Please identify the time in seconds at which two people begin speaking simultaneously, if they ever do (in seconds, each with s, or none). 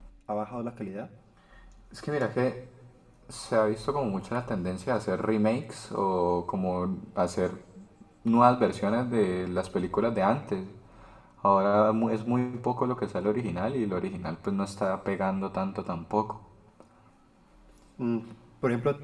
none